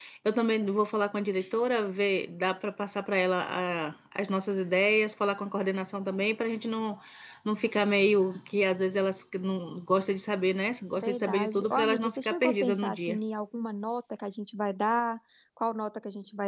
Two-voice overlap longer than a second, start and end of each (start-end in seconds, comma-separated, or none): 11.0-13.2